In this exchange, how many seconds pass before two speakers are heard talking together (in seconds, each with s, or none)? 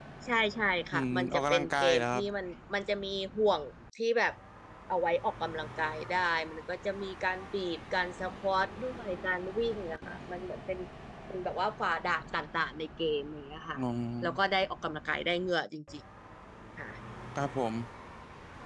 0.9 s